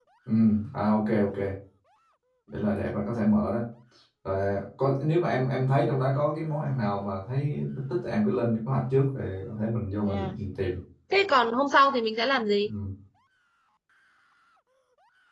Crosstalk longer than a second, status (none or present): none